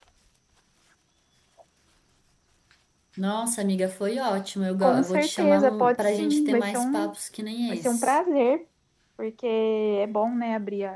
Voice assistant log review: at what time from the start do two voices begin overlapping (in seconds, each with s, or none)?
4.8 s